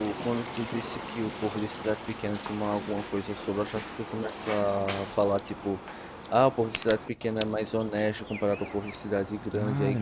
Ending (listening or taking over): taking over